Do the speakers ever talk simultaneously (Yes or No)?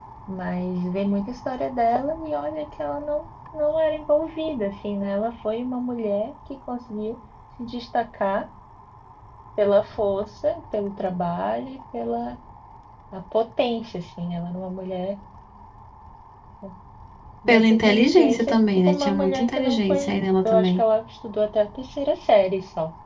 Yes